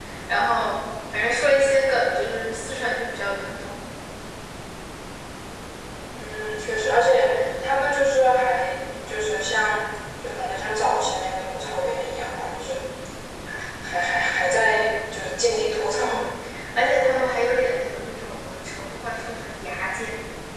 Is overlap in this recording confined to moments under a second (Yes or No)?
Yes